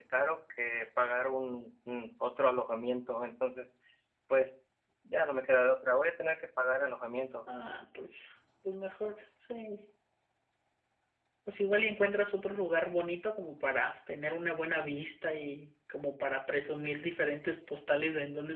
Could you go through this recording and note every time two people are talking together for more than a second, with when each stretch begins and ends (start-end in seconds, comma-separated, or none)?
none